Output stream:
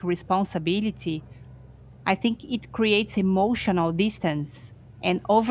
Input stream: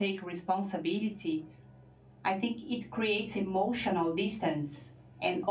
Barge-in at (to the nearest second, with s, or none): none